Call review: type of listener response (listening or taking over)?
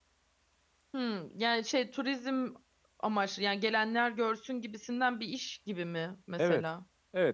taking over